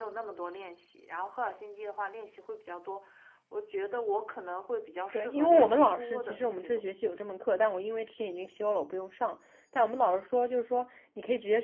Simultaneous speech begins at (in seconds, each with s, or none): 5.1 s